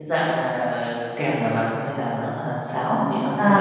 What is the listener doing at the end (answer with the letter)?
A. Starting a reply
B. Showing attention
A